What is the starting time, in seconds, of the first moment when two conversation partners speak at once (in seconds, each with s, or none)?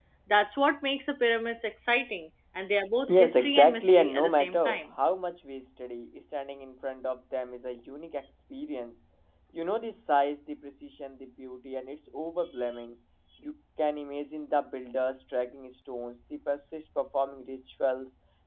3.1 s